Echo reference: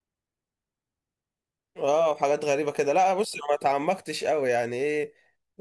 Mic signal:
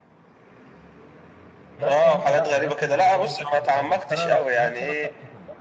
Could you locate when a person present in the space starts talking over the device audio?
1.8 s

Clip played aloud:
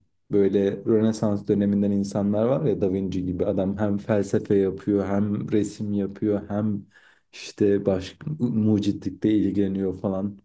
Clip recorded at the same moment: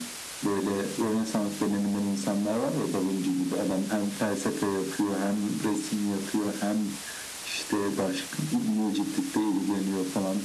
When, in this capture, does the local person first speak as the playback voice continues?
none

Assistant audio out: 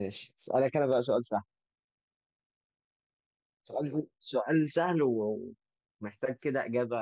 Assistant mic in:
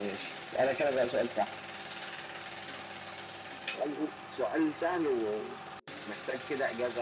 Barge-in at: none

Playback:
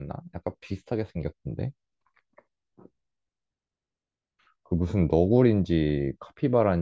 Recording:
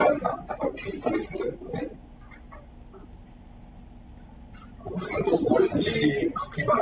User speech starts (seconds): 5.6 s

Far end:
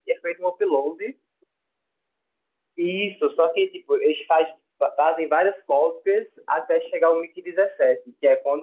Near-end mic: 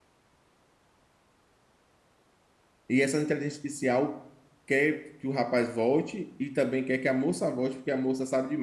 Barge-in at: 2.9 s

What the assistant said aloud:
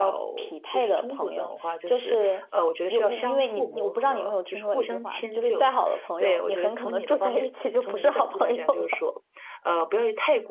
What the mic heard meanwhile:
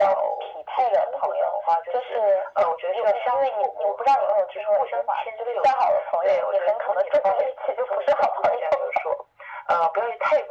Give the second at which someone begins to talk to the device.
none

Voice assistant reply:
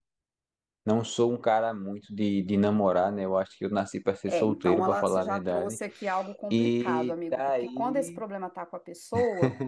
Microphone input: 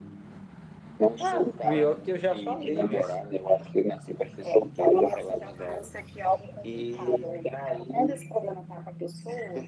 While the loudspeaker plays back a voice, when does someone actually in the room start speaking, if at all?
1.2 s

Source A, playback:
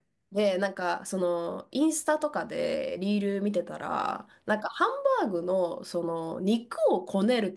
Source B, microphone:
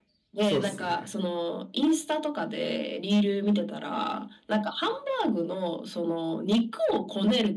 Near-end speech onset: 0.4 s

